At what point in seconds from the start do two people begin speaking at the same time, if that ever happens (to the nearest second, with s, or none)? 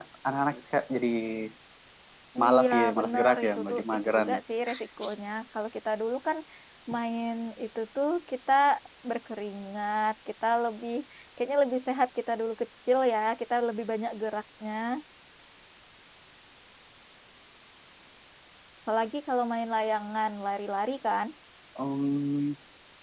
3 s